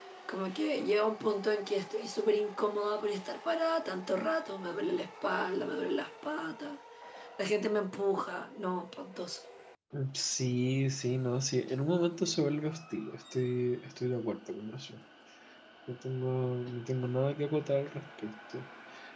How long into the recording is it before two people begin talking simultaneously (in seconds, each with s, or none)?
none